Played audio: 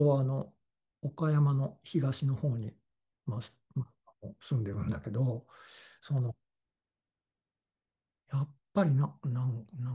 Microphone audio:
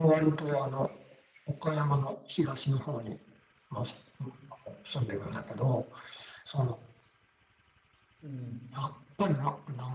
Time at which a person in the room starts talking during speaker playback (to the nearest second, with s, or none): 8 s